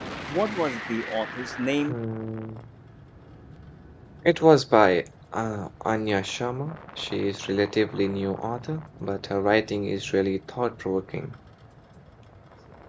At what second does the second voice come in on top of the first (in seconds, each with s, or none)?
none